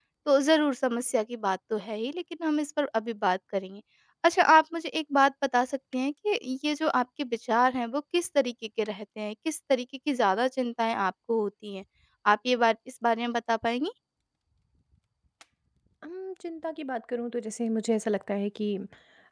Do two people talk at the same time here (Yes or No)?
No